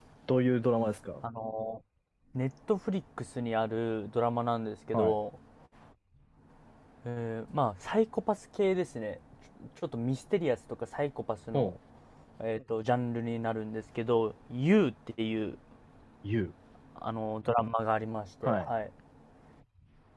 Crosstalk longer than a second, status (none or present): none